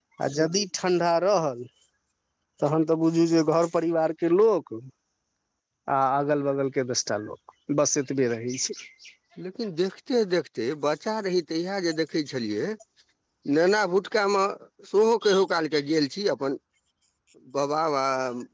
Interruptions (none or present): none